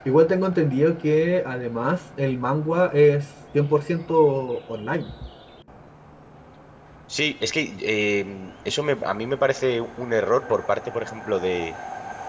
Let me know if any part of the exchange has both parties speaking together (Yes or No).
No